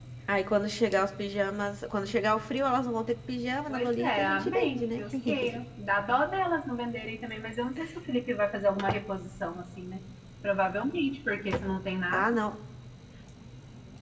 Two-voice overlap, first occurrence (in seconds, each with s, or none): 3.7 s